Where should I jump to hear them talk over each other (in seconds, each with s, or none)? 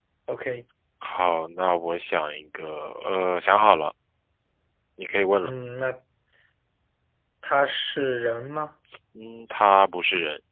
none